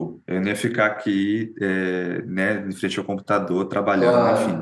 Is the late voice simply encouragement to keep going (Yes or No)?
Yes